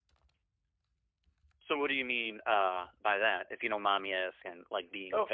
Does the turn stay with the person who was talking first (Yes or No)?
No